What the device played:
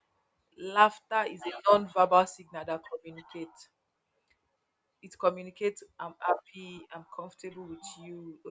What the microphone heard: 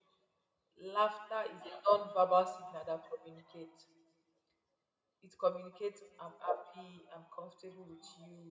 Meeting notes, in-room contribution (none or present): none